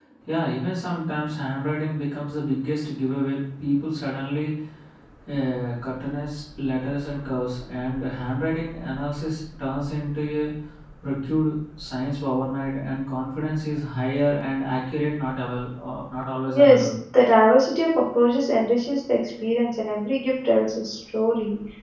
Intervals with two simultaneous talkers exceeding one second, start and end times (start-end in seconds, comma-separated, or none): none